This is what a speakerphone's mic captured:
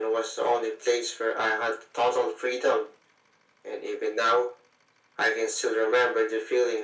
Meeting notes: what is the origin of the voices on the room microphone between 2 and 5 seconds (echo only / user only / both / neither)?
echo only